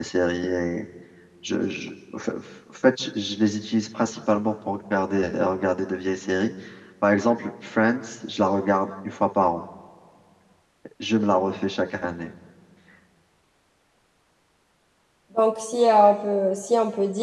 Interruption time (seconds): none

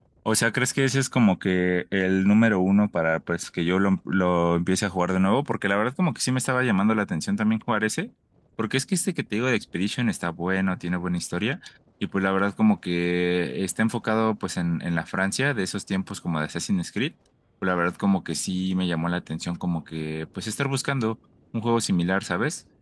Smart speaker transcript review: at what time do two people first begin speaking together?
none

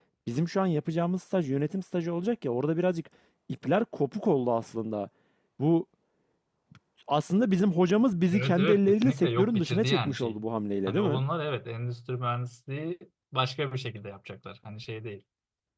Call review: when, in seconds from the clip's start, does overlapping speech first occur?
8.3 s

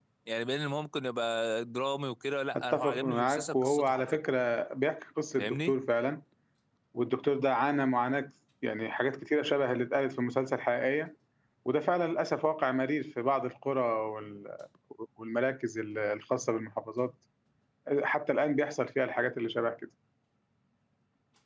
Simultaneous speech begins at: 2.5 s

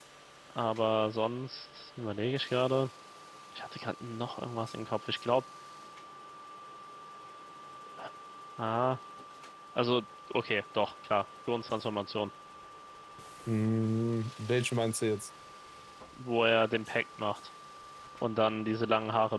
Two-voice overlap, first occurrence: none

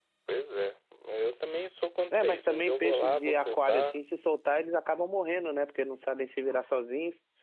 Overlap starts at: 2.1 s

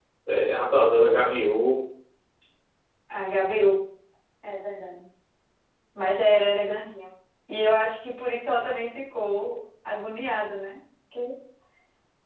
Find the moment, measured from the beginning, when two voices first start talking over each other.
none

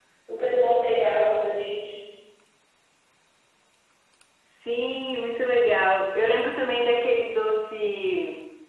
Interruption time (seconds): none

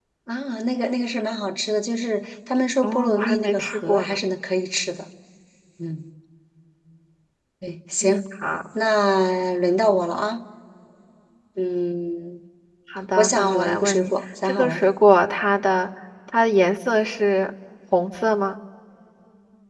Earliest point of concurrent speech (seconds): 2.8 s

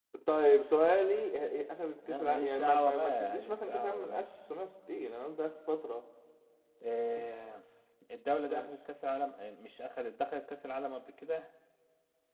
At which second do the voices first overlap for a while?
2.1 s

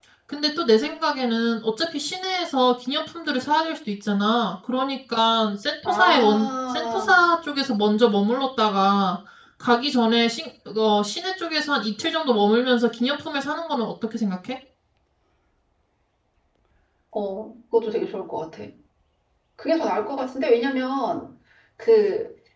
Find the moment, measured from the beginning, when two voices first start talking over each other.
5.8 s

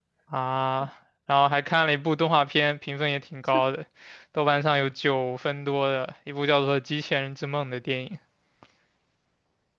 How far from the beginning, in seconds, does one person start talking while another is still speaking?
none

